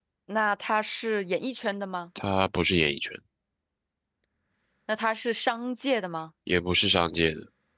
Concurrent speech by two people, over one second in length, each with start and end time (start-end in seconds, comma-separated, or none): none